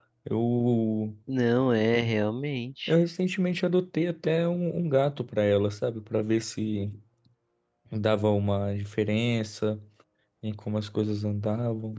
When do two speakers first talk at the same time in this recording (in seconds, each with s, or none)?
none